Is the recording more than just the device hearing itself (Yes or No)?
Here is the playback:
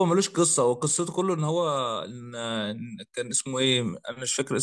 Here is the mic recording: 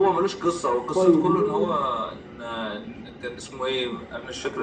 Yes